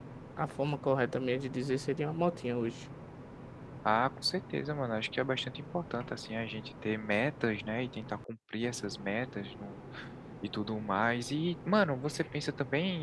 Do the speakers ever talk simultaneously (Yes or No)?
No